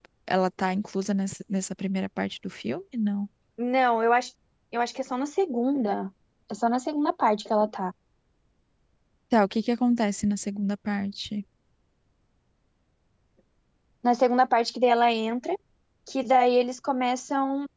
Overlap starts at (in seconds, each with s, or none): none